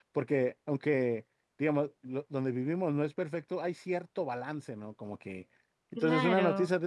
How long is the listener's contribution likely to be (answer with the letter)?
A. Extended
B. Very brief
B